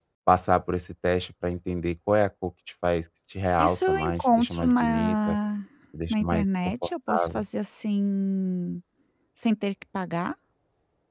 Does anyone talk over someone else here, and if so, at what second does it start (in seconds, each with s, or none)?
3.6 s